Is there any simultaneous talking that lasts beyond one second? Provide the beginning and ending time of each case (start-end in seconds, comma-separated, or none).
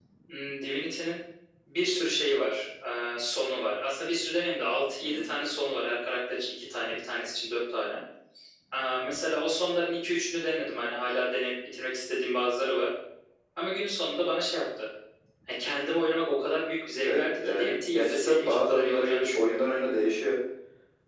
17.0-19.7